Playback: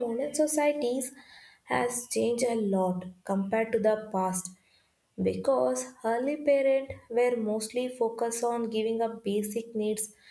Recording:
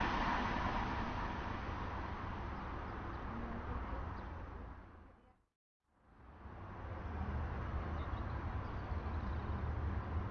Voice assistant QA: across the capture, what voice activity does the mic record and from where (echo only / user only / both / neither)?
neither